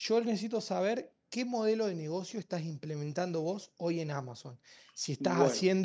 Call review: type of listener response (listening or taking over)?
listening